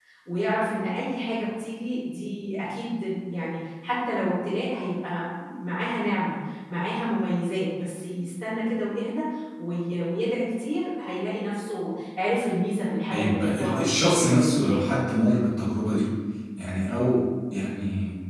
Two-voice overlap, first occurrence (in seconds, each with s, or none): 13.1 s